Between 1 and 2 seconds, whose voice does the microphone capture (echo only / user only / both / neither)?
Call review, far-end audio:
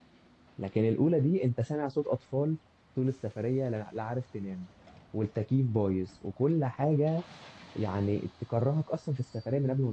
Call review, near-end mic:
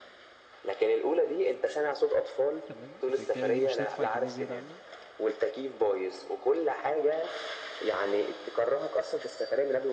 echo only